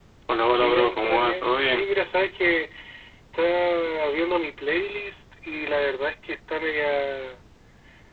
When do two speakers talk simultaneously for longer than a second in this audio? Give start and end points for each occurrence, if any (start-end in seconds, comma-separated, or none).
0.5-1.8